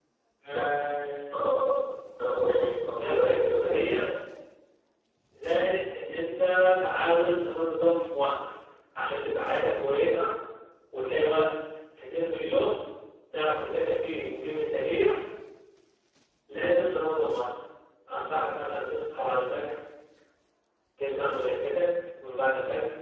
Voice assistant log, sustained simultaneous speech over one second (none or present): present